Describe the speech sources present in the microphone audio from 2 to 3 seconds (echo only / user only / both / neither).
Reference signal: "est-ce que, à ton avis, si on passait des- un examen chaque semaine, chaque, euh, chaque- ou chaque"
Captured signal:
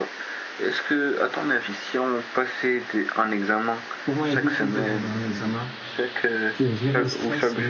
echo only